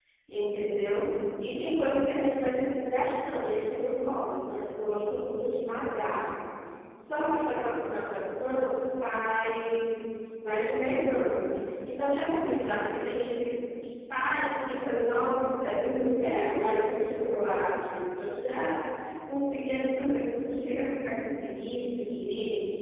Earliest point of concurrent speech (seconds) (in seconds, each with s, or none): none